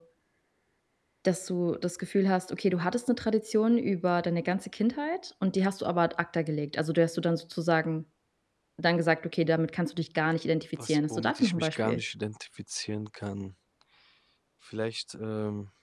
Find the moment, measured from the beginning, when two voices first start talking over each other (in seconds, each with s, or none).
10.8 s